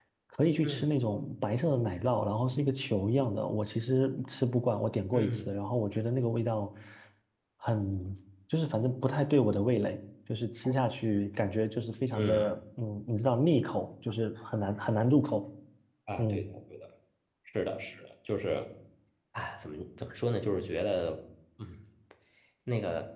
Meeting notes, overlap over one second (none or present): none